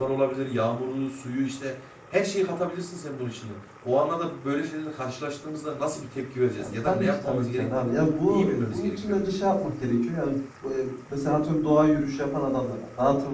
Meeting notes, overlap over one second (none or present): present